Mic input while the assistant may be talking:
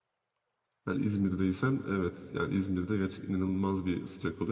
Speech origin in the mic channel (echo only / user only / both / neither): user only